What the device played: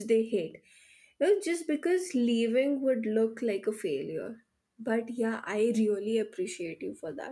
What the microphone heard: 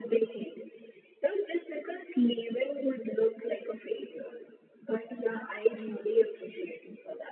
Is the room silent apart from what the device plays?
Yes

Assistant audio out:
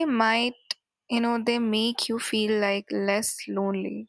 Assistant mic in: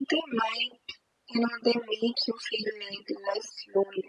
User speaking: No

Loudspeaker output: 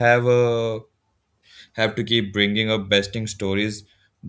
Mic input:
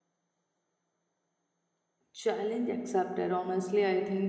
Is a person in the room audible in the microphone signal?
Yes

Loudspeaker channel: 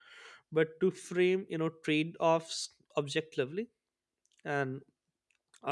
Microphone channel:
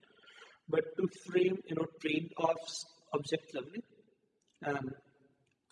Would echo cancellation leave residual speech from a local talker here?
No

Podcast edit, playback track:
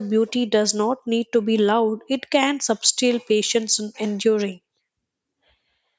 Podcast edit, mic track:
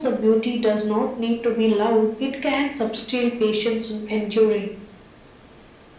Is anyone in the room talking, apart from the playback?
No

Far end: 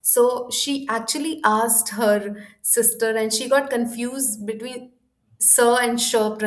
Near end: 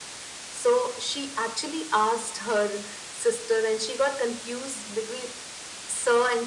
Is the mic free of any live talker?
Yes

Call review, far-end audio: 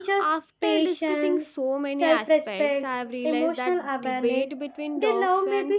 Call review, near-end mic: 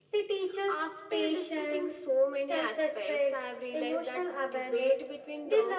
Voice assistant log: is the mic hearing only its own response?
Yes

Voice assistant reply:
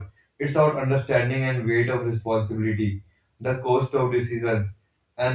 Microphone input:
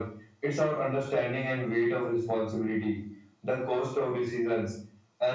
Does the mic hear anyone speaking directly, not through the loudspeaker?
No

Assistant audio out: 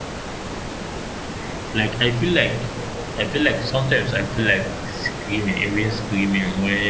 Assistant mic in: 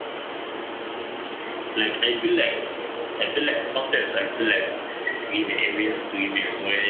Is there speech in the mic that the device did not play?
No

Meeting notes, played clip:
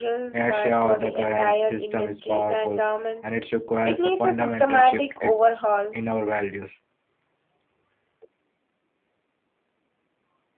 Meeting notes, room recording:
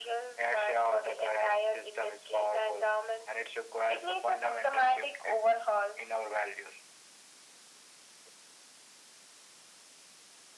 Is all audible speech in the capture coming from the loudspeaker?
Yes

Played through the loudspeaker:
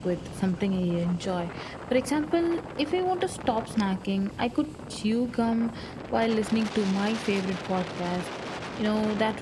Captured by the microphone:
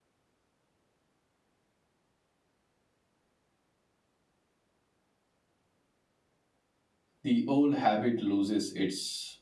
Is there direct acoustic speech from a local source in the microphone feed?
Yes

